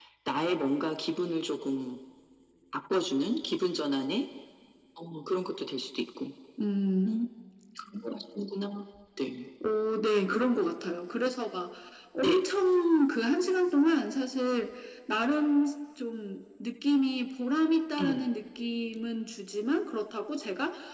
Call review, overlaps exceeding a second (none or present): none